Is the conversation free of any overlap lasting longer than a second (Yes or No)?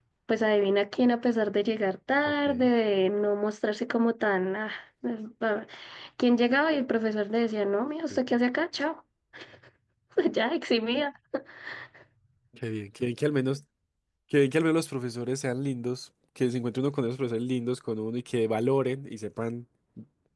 Yes